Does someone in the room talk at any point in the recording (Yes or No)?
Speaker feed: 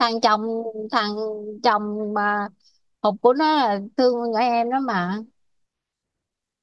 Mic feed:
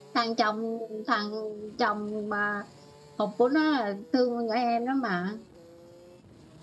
No